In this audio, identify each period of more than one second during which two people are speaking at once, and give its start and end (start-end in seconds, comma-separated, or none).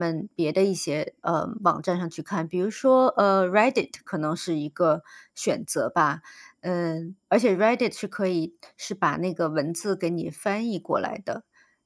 none